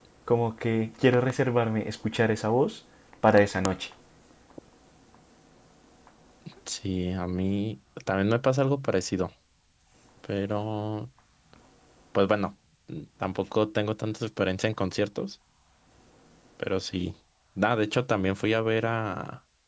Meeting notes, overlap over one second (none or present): none